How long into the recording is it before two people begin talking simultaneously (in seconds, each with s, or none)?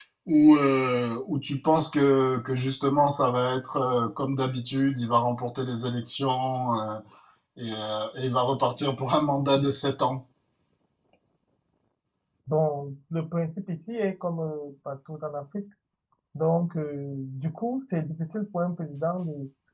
none